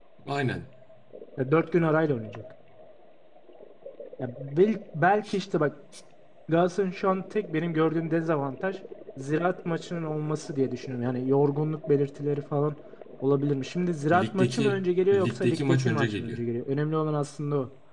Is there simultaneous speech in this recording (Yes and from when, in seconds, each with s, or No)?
Yes, from 14.1 s